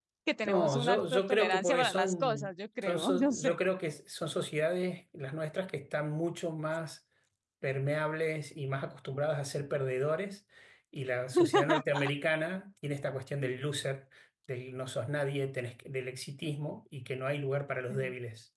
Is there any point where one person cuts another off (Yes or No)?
Yes